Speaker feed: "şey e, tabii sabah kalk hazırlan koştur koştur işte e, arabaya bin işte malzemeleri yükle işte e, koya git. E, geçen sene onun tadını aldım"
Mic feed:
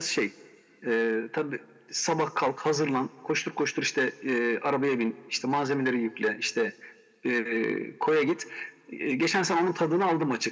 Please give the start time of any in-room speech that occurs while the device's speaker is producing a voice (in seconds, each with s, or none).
none